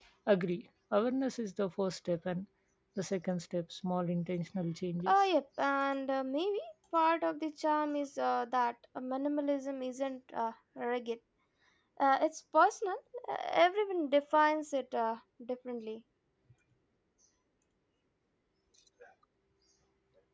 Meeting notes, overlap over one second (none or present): none